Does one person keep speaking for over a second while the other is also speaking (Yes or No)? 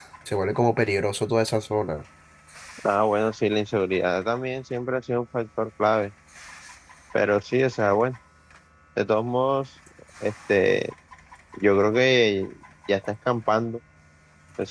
No